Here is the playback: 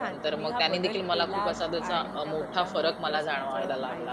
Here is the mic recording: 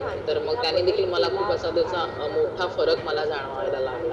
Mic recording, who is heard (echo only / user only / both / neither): echo only